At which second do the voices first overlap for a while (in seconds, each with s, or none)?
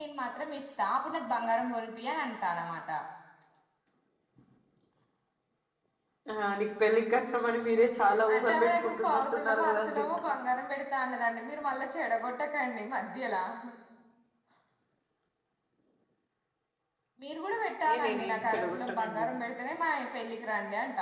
8.3 s